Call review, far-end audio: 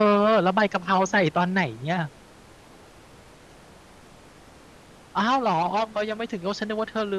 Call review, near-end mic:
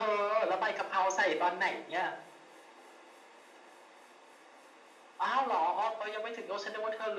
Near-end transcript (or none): none